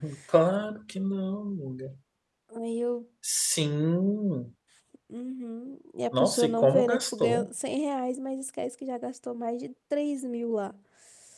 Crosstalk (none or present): present